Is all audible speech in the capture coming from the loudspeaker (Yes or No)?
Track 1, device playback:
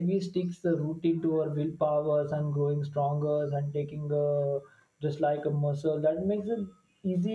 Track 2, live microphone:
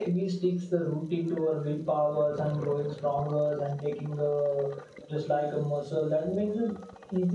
Yes